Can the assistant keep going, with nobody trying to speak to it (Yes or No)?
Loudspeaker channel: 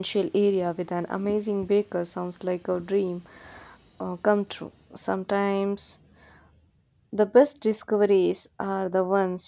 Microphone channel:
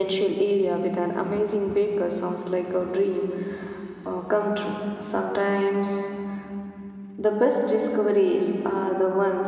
Yes